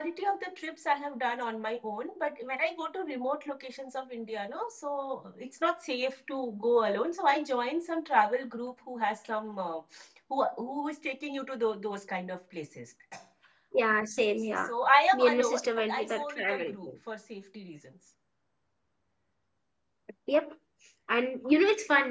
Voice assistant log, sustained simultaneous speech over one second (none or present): present